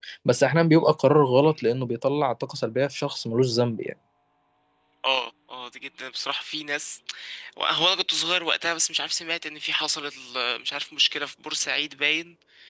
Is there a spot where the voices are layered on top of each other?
No

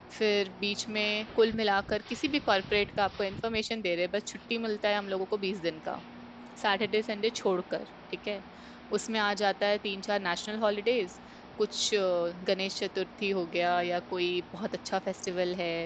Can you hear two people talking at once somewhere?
No

